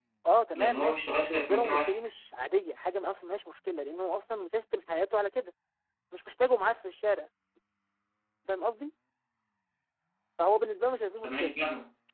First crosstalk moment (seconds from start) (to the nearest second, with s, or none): 1 s